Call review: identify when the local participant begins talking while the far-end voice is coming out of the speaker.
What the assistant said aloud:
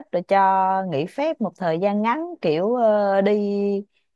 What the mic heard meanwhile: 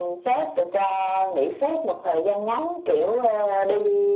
none

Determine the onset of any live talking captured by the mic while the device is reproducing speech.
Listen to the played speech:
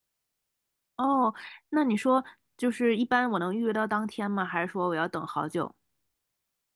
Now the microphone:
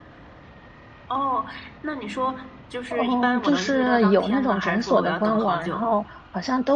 2.9 s

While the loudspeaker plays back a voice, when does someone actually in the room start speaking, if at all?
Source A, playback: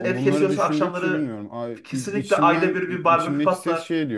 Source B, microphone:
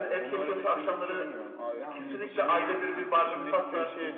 1.7 s

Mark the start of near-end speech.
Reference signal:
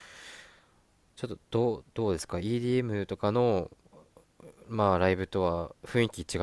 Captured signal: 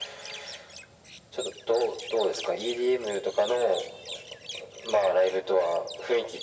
none

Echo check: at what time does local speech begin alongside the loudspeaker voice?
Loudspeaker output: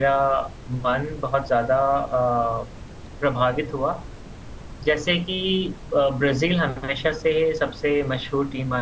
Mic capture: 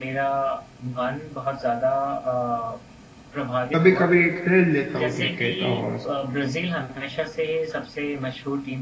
3.8 s

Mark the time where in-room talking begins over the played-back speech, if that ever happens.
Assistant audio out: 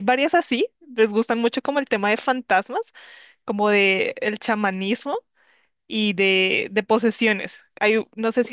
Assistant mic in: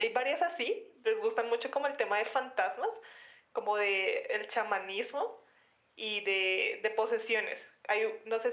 none

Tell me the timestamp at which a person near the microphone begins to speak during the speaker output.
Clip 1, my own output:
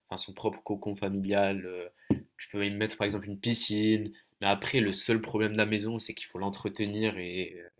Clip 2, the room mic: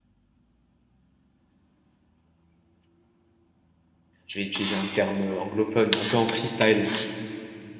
4.3 s

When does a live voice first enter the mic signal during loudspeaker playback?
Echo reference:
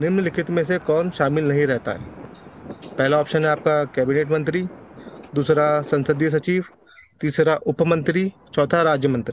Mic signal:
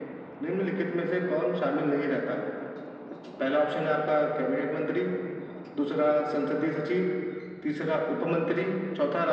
none

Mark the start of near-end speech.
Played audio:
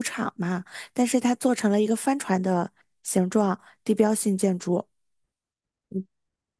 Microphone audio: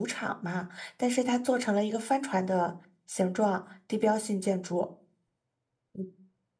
none

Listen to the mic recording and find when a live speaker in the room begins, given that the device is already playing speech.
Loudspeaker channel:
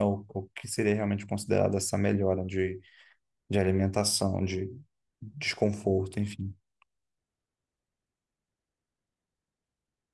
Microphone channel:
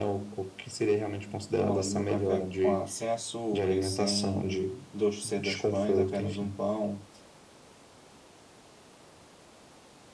1.5 s

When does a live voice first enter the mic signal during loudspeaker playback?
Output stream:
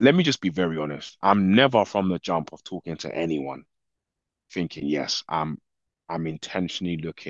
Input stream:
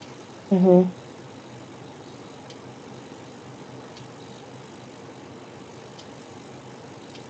0.5 s

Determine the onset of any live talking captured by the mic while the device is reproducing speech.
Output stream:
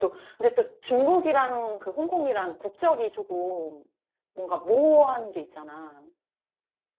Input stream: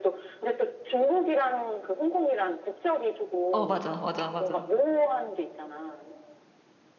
3.5 s

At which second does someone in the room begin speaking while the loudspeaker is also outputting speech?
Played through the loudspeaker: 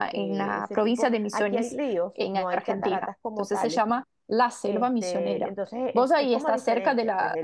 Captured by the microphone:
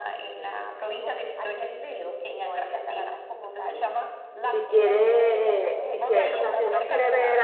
4.4 s

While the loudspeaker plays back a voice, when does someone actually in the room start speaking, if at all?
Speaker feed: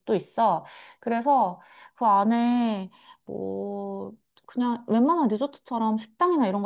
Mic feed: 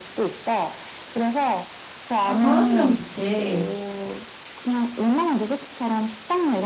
2.2 s

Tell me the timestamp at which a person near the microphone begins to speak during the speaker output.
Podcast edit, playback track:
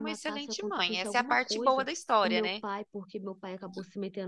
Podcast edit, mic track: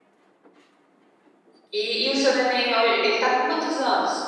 1.8 s

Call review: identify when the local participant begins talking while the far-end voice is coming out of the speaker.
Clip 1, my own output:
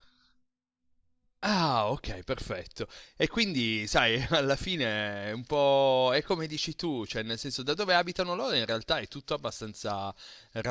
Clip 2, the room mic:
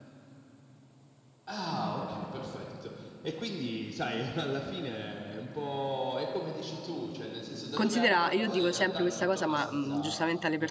7.7 s

